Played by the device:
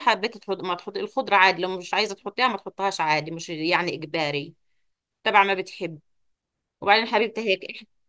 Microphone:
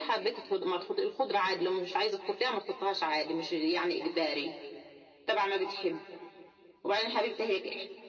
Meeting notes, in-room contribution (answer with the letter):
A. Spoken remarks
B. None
B